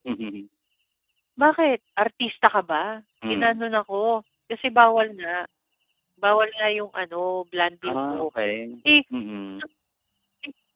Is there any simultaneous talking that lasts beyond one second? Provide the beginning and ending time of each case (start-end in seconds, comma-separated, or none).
none